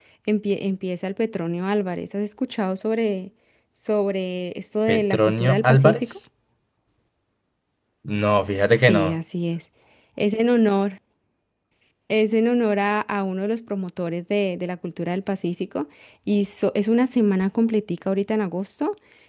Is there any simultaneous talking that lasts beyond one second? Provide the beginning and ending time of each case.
4.9-6.2

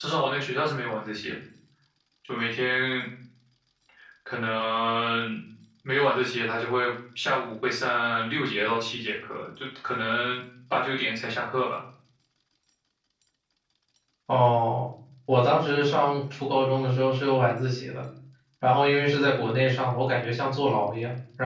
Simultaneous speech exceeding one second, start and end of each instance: none

